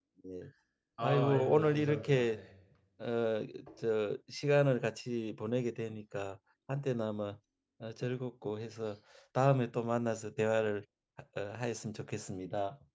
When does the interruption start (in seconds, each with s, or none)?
1.0 s